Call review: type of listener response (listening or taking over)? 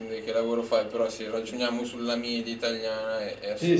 taking over